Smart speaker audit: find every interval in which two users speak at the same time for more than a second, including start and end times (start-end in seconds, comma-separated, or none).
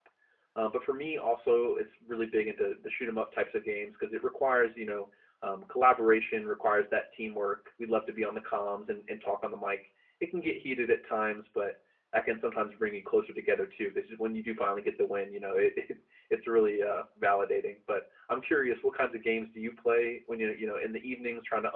none